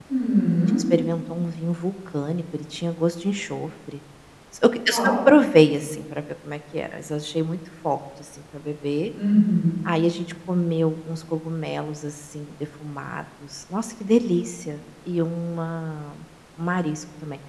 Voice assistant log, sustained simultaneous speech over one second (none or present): none